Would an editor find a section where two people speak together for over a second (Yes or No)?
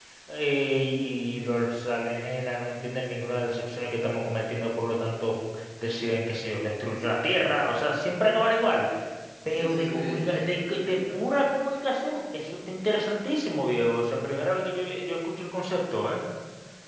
Yes